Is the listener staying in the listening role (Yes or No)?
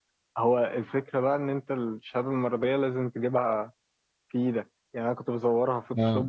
Yes